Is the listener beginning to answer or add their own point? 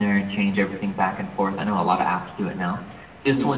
No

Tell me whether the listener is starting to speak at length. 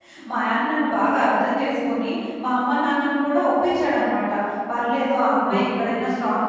No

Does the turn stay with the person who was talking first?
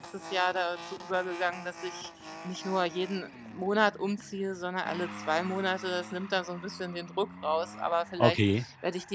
Yes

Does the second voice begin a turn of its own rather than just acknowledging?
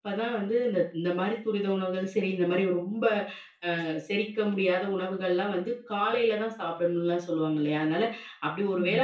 No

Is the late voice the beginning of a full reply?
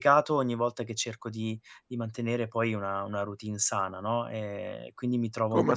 No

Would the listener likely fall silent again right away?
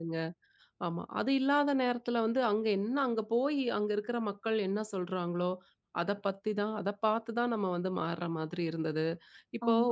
Yes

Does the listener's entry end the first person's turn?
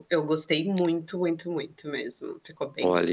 Yes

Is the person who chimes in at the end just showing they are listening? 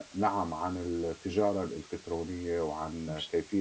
Yes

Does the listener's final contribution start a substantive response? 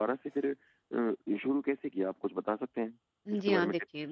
Yes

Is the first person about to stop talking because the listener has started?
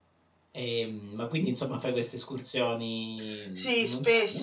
Yes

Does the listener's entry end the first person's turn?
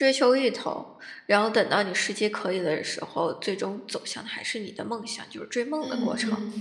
Yes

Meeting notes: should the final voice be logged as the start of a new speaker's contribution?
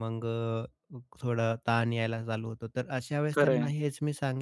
No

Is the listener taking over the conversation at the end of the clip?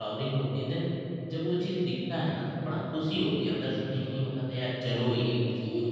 Yes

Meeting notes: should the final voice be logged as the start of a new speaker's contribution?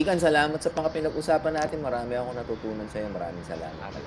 Yes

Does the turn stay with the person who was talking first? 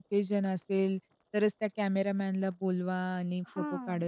Yes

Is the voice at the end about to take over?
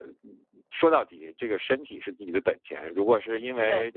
No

